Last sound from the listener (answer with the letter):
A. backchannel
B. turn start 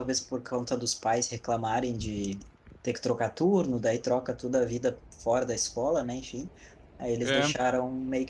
A